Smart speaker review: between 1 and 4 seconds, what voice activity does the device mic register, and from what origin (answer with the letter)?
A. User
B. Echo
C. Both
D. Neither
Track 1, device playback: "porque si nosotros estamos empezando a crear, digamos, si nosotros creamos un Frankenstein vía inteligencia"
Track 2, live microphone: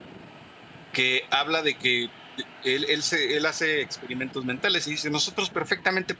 A